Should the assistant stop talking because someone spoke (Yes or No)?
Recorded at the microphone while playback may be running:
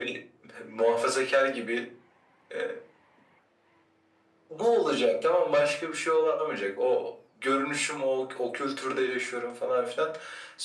No